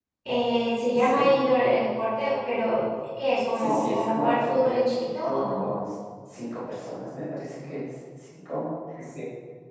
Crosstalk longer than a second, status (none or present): present